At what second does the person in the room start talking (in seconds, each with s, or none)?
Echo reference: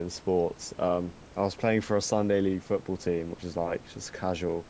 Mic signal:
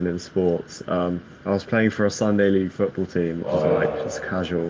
3.4 s